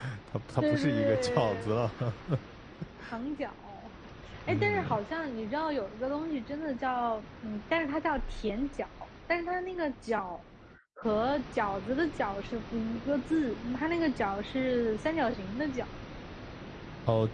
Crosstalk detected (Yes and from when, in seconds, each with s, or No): Yes, from 0.6 s